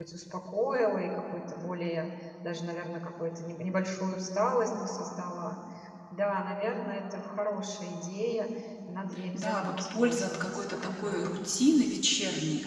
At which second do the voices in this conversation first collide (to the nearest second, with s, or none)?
9 s